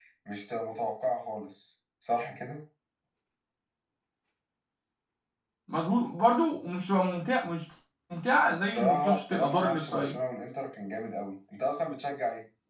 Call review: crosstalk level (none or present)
present